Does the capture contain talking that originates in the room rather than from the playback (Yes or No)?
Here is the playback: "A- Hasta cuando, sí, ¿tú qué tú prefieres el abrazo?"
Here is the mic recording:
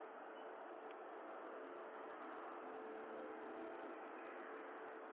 No